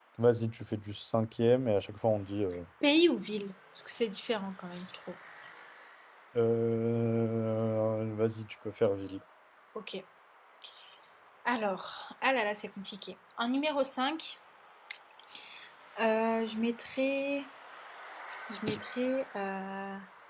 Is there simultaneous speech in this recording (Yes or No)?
No